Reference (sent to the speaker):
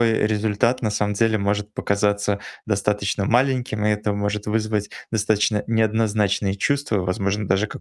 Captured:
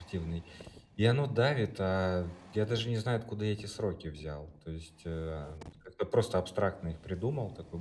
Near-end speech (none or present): present